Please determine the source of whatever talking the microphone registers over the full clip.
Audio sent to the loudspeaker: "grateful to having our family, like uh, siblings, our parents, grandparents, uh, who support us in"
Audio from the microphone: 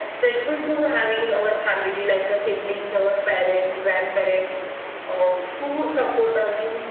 echo only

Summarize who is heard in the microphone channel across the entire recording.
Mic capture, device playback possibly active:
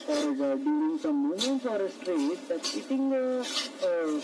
echo only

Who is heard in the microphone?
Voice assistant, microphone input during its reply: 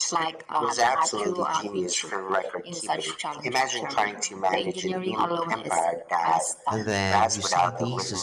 both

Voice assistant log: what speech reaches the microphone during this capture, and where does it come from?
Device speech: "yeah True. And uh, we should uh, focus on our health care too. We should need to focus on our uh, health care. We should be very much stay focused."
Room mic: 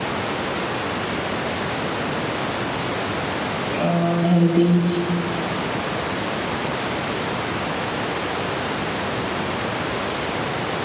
user only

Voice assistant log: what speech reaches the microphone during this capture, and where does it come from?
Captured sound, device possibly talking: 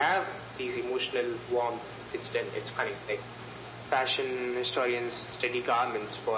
echo only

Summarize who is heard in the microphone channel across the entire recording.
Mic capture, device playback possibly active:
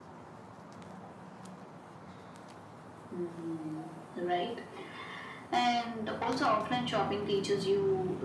echo only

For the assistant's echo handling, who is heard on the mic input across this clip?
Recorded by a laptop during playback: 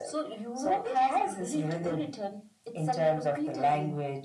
echo only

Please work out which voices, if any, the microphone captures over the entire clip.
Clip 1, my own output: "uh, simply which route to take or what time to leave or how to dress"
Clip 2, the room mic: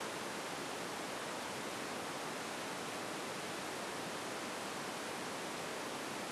neither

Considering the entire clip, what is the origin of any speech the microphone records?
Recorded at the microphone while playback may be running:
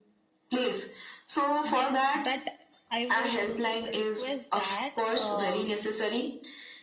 both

